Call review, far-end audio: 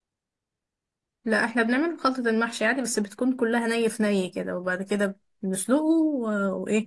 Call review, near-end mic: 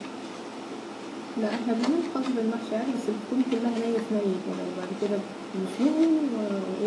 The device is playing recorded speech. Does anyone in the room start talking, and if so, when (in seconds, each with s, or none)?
none